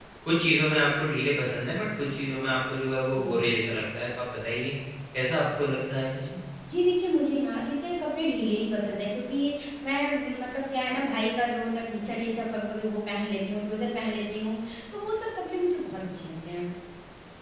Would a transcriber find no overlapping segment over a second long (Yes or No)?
Yes